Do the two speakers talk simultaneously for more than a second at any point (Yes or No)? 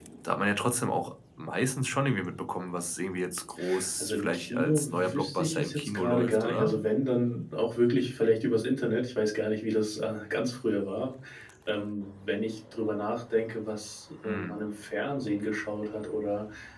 Yes